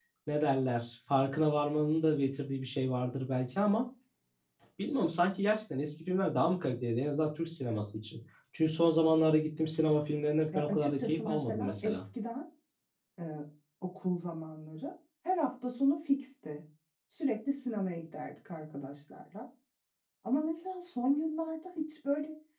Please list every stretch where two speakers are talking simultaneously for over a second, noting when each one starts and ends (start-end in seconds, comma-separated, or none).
10.6-12.0